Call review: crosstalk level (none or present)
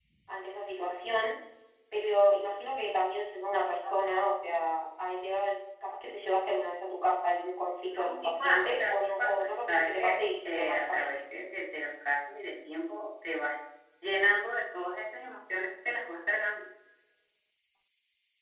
present